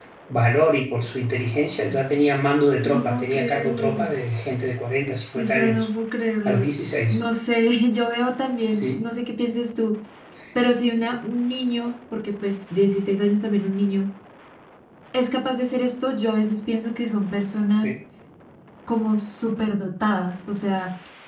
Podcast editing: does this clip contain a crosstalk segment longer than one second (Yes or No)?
Yes